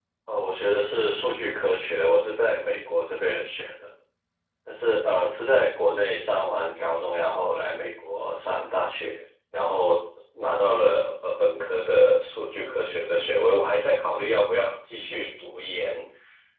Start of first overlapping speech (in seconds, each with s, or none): none